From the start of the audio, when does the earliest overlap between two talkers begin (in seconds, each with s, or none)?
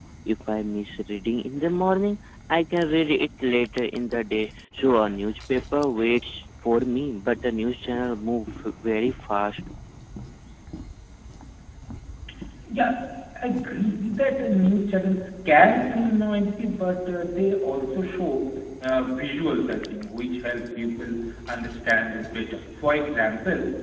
none